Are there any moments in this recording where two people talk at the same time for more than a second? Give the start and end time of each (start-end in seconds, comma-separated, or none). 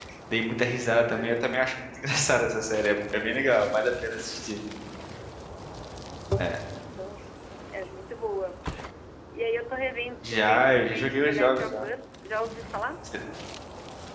10.2-11.9